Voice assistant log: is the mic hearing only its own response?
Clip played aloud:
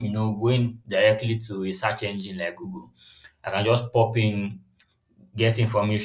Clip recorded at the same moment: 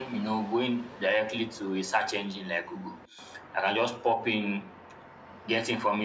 Yes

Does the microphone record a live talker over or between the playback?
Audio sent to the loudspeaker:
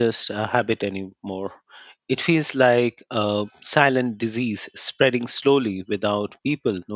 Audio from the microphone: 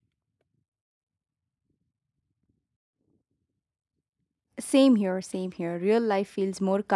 Yes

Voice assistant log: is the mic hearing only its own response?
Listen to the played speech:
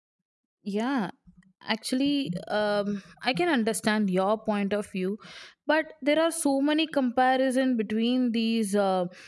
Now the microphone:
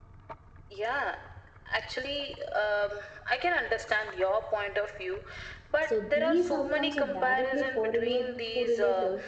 No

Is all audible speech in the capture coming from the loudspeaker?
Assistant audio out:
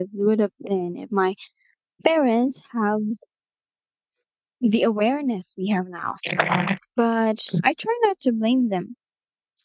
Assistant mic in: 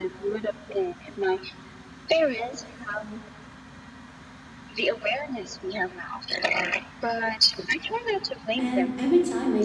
No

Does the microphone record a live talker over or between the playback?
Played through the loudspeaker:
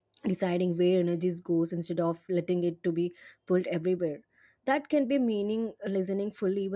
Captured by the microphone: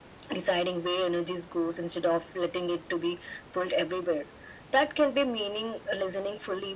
No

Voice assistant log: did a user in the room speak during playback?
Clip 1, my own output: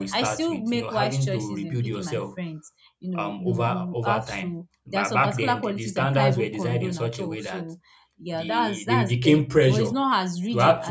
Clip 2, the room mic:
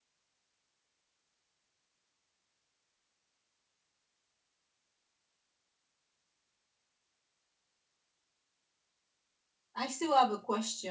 Yes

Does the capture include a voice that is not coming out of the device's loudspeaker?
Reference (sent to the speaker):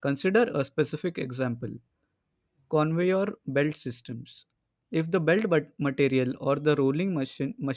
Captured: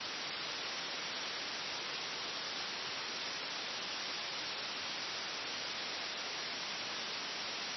No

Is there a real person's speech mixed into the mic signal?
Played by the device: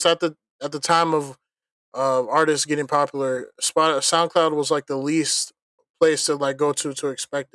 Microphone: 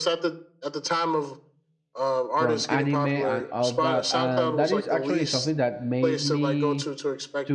Yes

